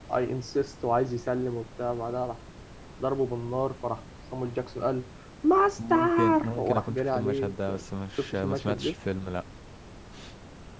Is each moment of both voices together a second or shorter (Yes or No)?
No